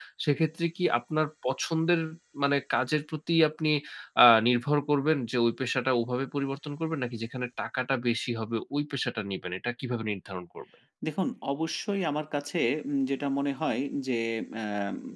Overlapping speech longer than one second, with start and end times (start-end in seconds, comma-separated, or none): none